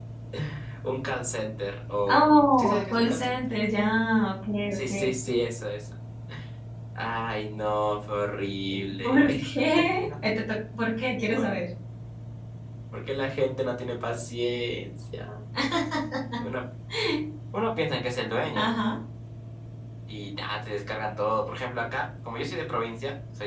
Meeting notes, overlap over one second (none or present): present